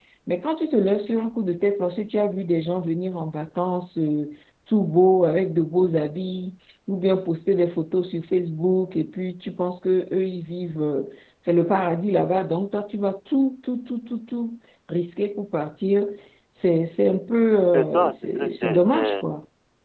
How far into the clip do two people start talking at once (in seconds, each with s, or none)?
17.7 s